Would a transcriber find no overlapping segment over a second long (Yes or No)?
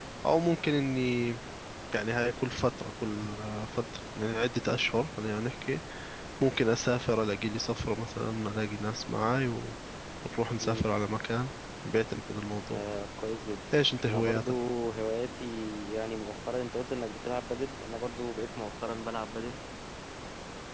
Yes